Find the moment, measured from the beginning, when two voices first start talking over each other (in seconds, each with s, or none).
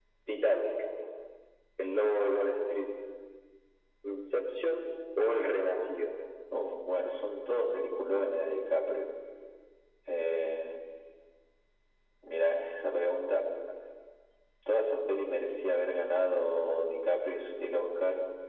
none